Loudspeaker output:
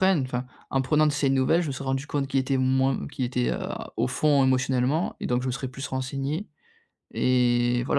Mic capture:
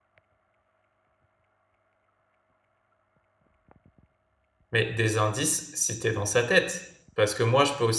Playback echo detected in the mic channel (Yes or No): No